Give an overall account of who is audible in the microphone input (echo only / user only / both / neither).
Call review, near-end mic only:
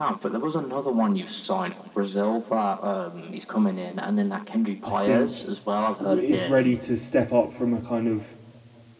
both